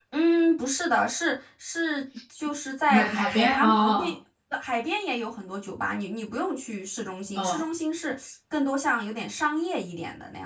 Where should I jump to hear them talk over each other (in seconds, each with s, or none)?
2.9 s